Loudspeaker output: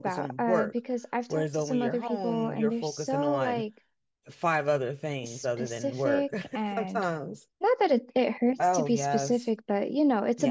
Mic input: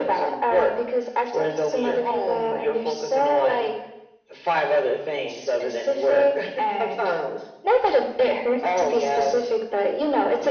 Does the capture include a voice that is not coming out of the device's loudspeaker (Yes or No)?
No